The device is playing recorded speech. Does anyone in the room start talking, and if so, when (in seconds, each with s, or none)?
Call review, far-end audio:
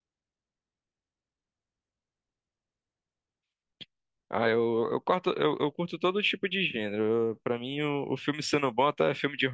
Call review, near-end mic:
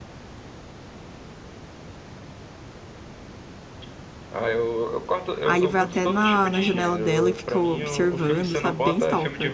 5.4 s